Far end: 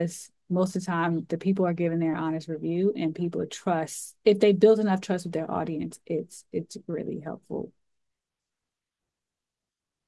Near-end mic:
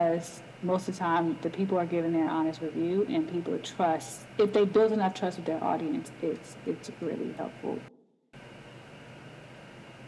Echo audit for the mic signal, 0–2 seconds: echo only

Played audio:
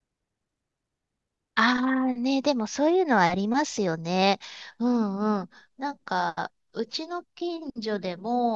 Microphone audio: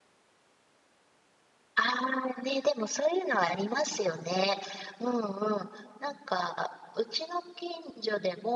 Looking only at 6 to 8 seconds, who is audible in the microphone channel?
echo only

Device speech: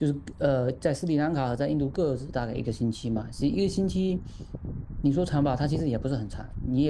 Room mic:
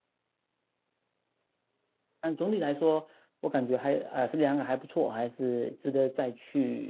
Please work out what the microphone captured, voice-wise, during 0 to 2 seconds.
neither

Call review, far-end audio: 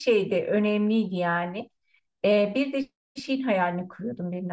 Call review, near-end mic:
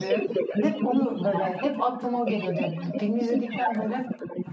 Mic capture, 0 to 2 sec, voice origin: both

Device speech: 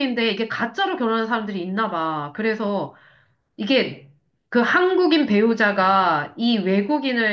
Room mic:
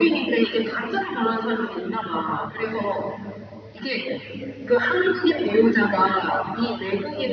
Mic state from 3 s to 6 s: echo only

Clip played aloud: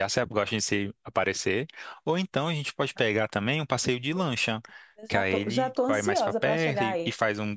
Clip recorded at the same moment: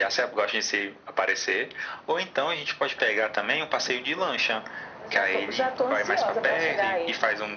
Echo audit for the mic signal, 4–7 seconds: echo only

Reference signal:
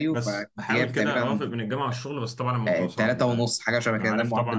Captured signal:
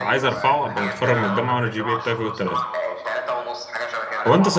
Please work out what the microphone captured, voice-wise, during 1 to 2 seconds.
both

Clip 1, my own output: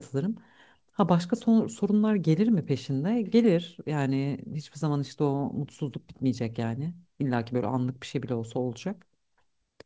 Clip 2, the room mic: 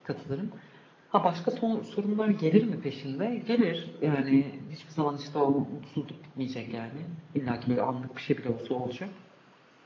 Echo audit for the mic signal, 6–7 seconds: echo only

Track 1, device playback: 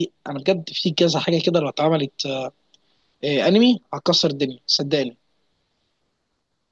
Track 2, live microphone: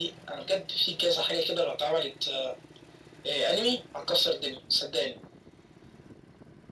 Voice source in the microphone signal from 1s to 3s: echo only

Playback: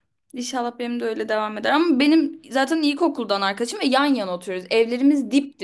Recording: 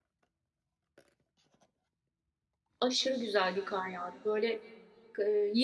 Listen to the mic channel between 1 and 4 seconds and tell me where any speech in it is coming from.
user only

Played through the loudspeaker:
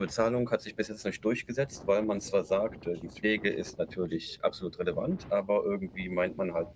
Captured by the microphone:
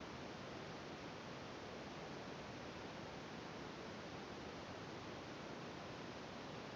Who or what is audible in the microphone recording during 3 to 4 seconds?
neither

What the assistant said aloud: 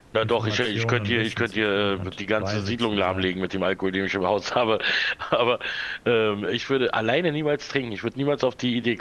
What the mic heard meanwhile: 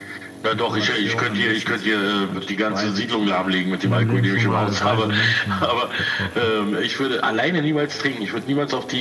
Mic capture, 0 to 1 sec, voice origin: echo only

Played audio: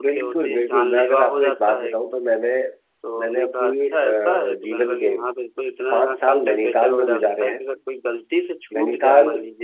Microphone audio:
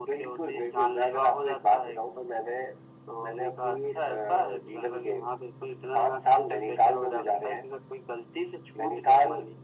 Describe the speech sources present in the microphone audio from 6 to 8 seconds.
echo only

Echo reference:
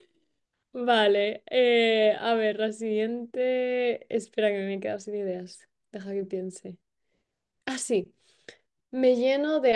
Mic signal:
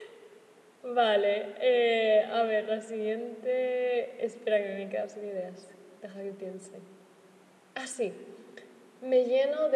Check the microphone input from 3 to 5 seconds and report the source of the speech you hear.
echo only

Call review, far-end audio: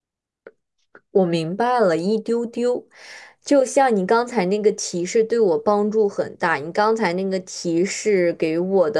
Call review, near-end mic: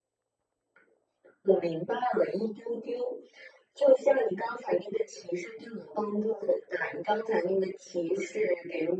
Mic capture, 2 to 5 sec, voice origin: echo only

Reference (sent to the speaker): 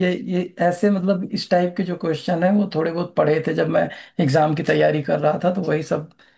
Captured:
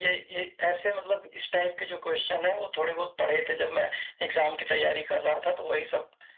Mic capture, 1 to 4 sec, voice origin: echo only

